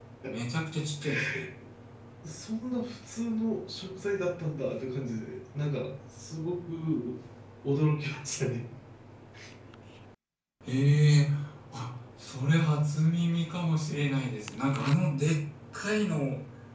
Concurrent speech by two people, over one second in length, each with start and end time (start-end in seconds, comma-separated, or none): none